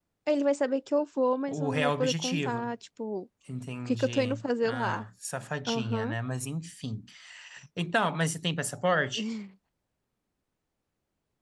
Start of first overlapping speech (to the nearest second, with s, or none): 1 s